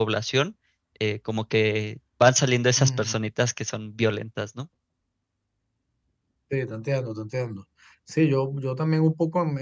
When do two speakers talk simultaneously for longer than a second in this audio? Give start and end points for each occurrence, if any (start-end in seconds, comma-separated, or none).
none